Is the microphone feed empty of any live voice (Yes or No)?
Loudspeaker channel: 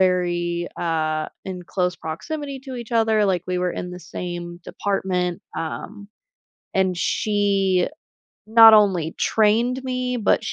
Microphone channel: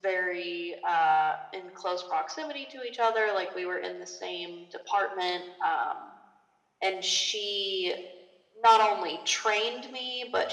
Yes